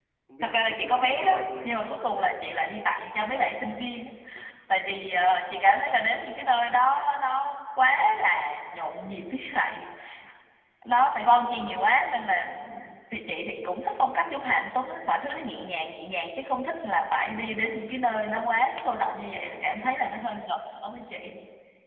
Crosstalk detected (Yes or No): Yes